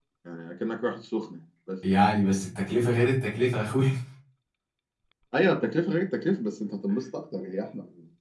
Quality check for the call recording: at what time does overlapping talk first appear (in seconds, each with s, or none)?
none